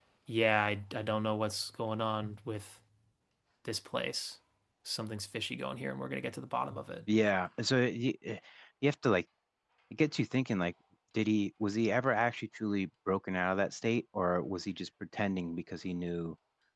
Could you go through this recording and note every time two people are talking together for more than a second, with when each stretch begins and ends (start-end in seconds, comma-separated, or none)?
none